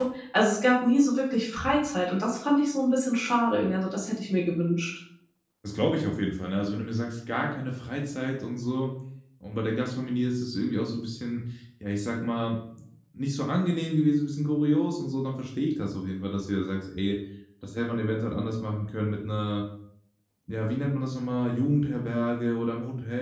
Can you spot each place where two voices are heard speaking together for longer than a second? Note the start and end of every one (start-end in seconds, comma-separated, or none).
none